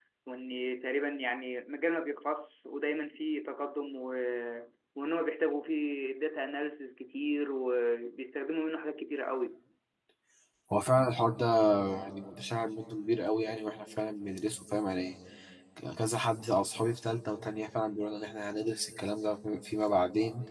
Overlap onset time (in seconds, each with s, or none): none